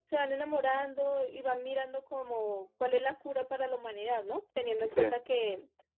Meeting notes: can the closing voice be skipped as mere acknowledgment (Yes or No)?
Yes